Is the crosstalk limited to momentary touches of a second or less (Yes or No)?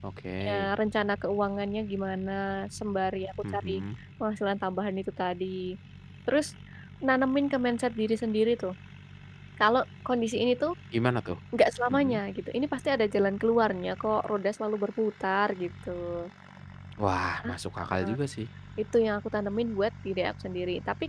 Yes